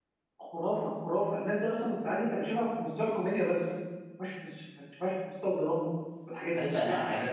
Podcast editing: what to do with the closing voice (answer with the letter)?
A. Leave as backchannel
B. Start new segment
B